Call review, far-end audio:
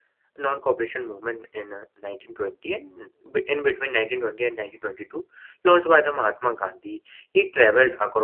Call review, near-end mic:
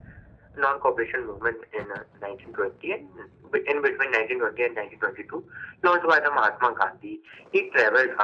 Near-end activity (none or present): none